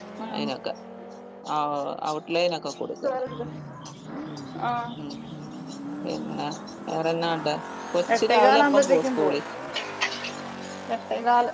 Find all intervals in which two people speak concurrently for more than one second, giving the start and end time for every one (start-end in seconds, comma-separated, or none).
8.1-9.4